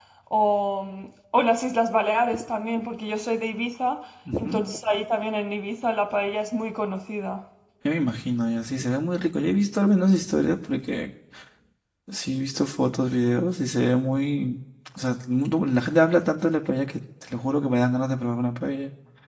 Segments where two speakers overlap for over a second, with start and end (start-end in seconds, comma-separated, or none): none